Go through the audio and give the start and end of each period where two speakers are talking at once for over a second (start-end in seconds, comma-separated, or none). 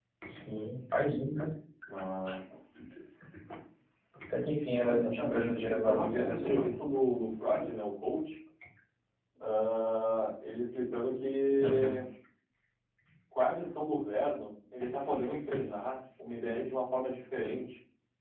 4.8-6.7